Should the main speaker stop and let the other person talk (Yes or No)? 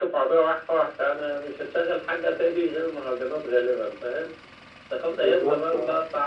No